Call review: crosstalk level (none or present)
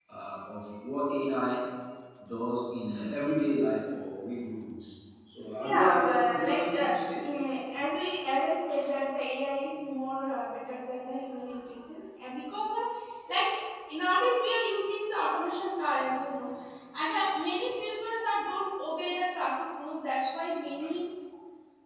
present